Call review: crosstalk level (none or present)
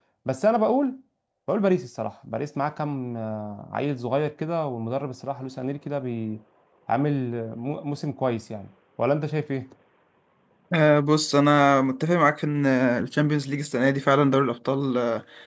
none